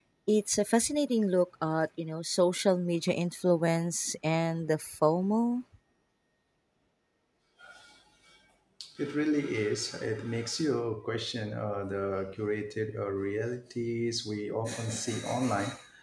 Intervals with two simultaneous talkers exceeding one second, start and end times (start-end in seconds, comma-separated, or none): none